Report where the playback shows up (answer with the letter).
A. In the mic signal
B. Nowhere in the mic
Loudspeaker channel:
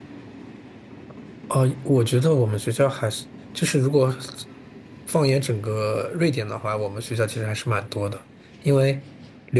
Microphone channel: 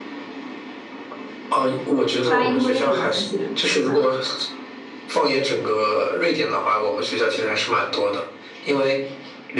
A